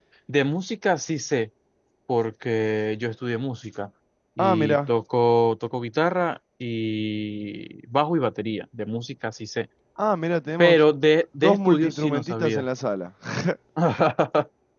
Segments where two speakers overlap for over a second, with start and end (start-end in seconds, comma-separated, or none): 11.4-12.7